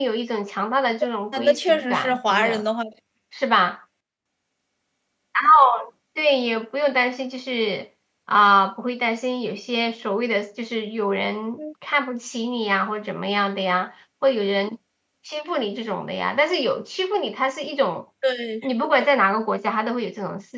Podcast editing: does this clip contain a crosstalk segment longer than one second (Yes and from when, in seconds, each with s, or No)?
Yes, from 1.3 s